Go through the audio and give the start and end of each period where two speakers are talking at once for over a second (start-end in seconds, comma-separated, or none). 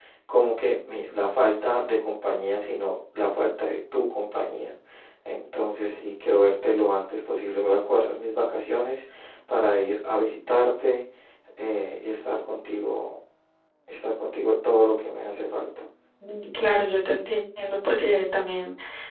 none